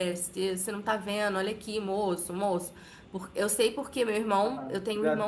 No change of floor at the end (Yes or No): No